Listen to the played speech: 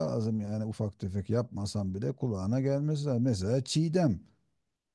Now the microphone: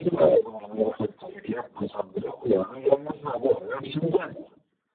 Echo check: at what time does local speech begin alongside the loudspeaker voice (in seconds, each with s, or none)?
none